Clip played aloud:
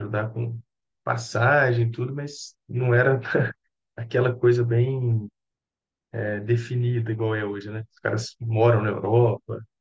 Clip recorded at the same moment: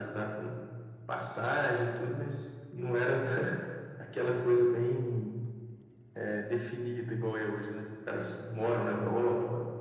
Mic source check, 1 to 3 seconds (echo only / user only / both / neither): echo only